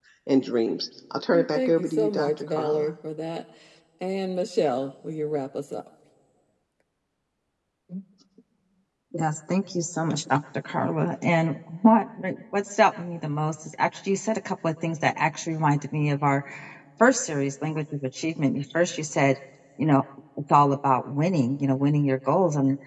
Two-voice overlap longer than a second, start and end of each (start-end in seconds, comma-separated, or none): 1.3-2.9